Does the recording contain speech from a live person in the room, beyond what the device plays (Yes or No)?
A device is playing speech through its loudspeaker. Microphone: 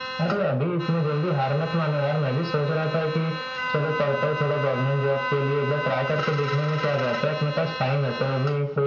No